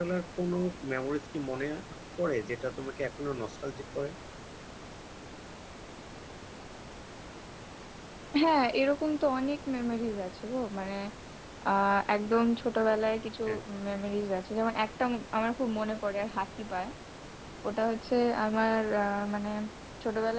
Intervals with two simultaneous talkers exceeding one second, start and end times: none

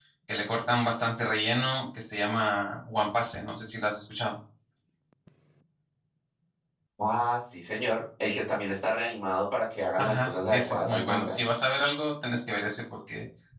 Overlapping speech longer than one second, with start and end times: 10.0-11.3

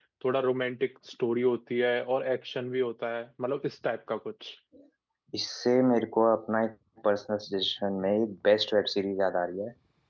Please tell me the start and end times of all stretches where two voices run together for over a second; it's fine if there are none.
none

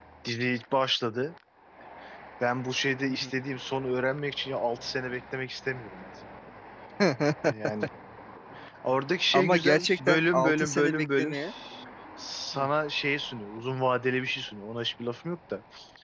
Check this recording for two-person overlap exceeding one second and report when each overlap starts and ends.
9.3-11.3

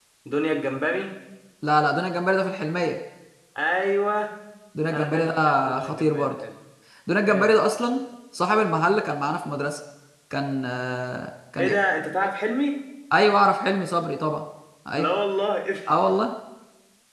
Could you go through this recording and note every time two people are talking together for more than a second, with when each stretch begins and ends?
4.9-6.3

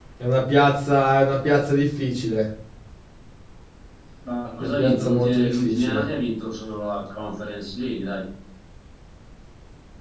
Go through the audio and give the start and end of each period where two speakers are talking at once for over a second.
4.6-6.0

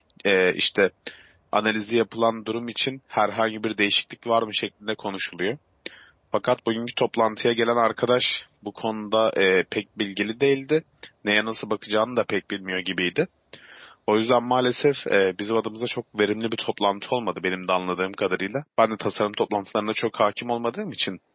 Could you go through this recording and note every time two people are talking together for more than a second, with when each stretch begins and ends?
none

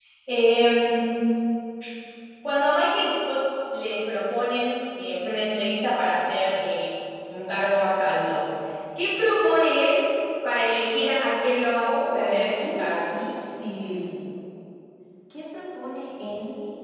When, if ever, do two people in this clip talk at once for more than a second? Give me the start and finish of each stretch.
11.8-13.2

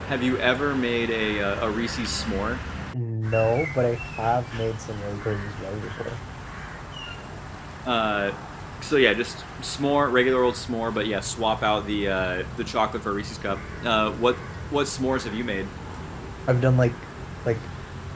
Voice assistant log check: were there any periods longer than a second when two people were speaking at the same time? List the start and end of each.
none

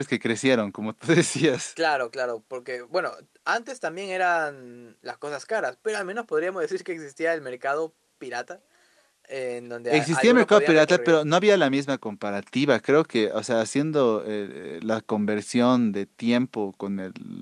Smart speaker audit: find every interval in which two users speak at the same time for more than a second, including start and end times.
9.9-11.2

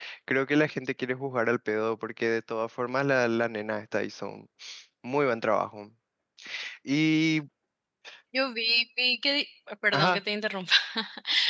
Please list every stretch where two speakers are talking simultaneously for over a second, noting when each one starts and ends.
none

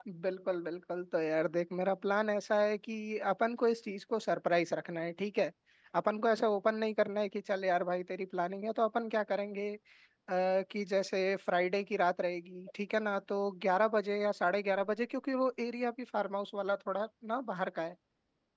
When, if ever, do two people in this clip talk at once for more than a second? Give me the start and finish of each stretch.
none

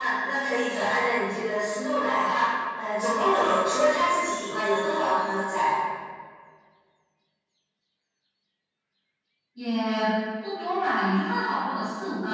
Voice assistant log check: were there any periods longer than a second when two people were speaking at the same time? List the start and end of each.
none

